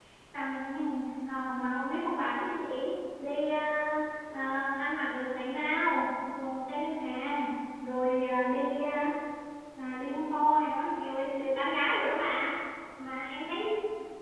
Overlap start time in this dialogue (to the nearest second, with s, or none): none